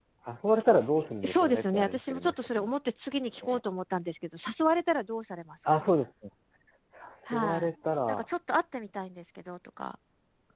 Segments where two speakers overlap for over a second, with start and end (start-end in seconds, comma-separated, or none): 0.9-2.7